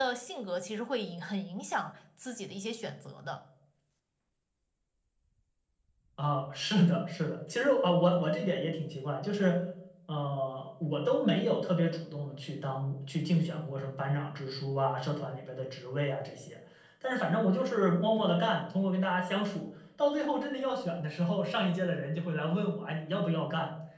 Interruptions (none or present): none